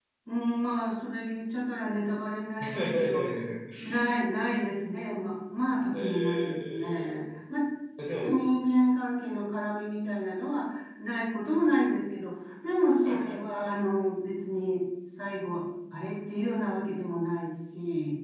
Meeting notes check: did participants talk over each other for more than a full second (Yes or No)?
Yes